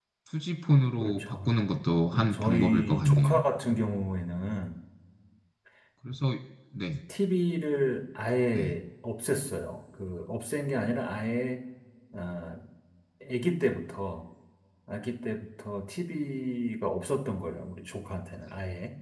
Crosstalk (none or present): present